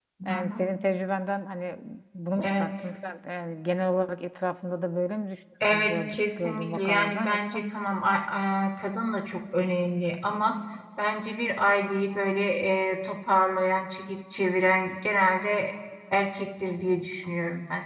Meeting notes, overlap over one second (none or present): present